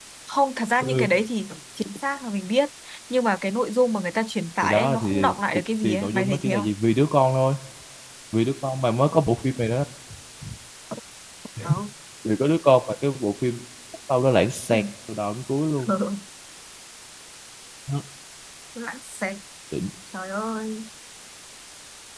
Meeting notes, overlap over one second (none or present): present